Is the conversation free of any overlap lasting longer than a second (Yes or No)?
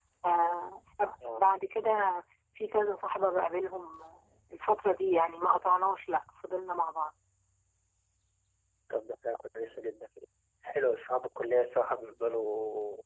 Yes